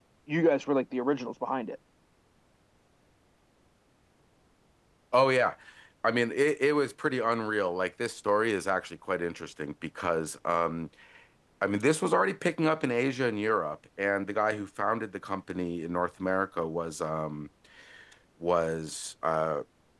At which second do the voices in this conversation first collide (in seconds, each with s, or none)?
none